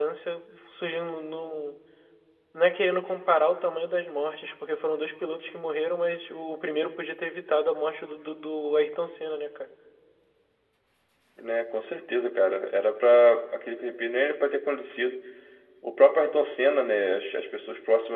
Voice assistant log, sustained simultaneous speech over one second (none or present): none